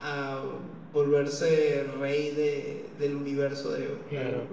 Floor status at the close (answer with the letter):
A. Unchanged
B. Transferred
A